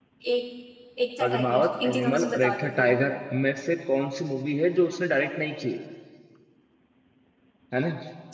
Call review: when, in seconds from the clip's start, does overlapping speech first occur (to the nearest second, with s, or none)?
1 s